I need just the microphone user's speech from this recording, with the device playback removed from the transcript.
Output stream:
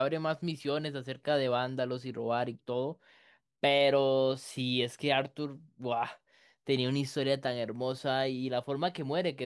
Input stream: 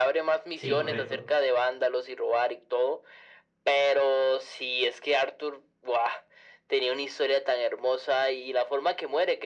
Sí, correcto.

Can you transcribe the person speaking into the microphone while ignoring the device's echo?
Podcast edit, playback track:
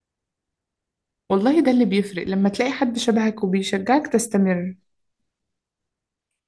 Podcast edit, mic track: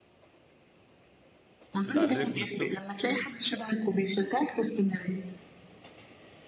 بتعلمك من الصفر

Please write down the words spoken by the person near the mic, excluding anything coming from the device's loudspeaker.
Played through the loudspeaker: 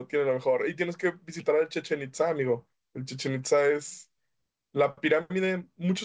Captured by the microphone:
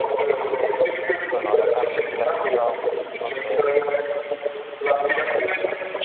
Sonora también sí la he escuchado y Monterrey.

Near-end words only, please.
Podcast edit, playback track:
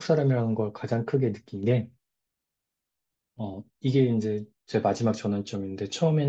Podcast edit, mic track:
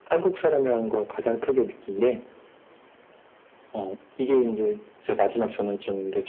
none

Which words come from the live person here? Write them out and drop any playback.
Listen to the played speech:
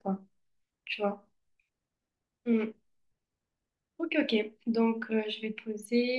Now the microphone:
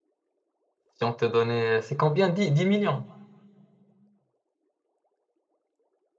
si on te donnait, c'est combien? Dix, dix millions?

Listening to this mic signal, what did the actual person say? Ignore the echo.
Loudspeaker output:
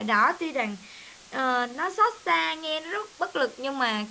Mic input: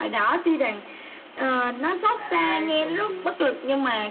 đã nay chồng chưa

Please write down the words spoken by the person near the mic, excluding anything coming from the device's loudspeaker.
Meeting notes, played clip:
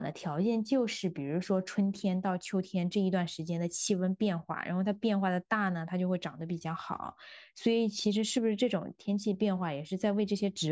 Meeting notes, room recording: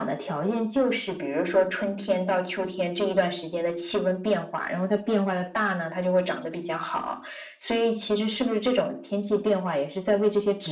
none

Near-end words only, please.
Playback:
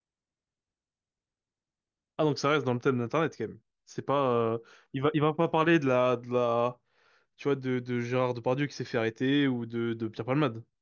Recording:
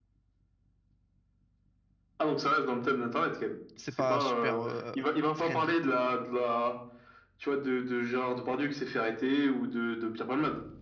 c'est pas super euh, friendly, quoi.

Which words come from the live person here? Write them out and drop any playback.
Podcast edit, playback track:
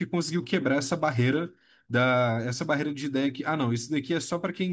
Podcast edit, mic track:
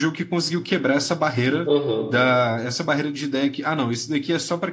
Aham,

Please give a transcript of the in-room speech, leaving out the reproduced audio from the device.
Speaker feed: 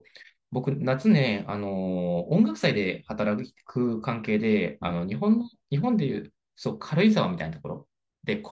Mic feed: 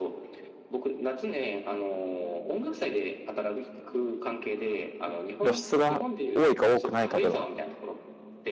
露出が多いか多くないかでの

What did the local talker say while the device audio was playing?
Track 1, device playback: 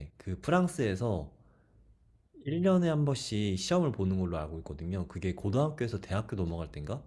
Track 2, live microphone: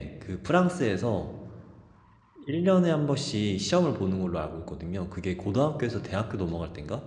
none

